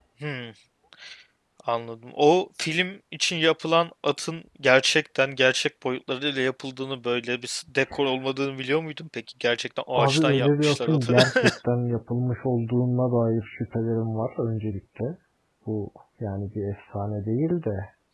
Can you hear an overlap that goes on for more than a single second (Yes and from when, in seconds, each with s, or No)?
Yes, from 10.0 s